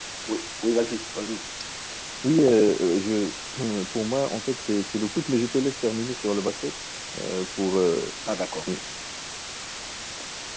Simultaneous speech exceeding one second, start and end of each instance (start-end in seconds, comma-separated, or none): none